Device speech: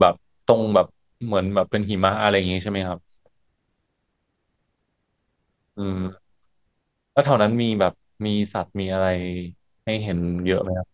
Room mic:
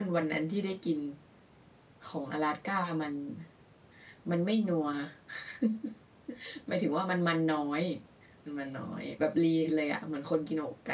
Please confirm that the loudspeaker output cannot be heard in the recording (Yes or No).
Yes